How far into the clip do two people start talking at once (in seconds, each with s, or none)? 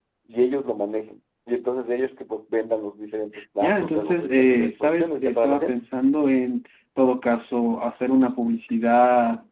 3.6 s